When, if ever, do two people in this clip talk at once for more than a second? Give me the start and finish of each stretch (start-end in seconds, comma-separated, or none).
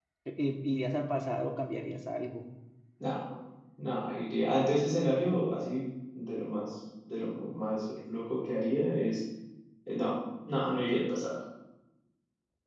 none